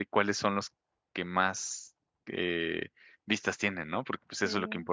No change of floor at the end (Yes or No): No